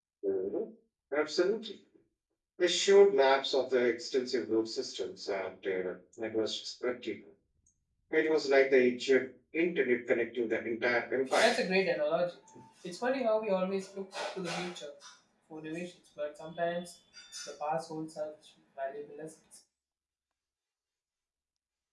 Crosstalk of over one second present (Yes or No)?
No